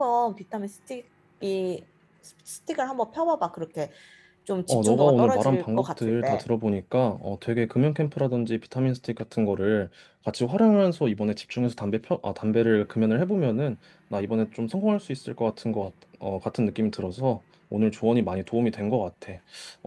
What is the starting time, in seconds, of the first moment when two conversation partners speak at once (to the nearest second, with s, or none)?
5 s